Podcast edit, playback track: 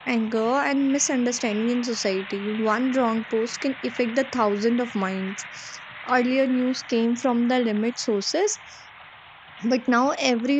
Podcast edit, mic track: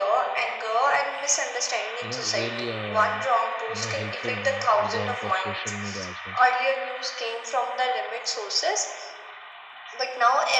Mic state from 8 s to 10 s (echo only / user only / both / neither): echo only